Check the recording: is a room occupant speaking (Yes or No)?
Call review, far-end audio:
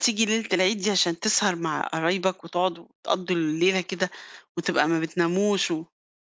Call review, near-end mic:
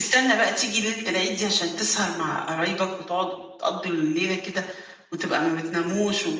No